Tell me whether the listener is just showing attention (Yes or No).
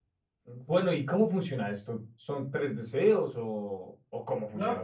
No